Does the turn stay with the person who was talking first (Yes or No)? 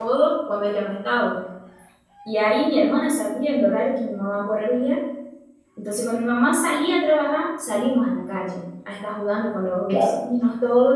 Yes